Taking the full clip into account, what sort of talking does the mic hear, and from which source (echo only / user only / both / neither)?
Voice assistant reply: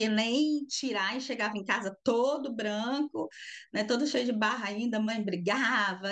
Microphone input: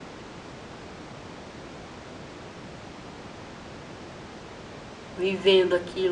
user only